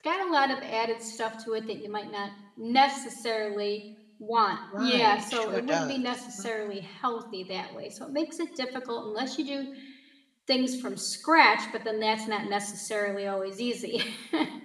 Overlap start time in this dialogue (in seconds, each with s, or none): 4.7 s